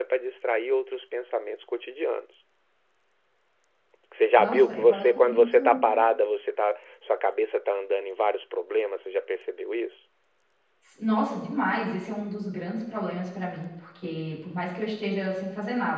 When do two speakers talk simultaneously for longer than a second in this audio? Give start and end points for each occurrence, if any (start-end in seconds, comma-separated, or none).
4.4-5.8